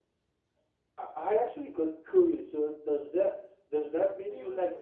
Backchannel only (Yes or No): No